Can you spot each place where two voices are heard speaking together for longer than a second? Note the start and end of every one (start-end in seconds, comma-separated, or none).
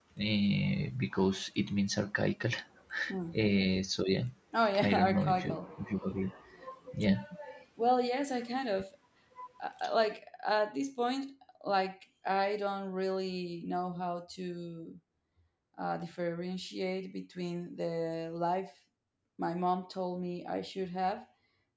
4.8-6.0